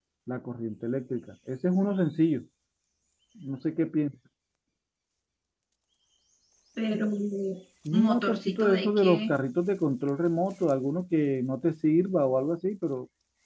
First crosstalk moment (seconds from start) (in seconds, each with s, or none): 7.9 s